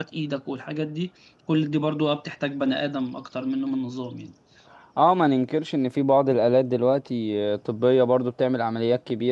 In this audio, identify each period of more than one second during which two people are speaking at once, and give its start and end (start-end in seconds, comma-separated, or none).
none